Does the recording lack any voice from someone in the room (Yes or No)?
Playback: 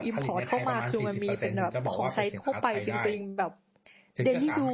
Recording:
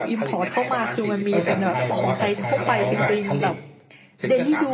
No